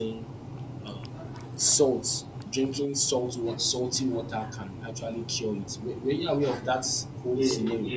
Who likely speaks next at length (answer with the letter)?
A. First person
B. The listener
B